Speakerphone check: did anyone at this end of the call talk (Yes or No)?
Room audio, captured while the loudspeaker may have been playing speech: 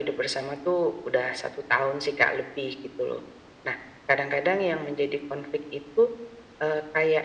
No